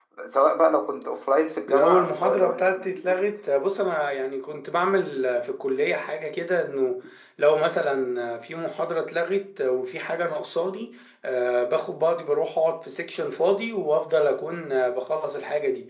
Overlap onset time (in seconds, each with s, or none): 1.7 s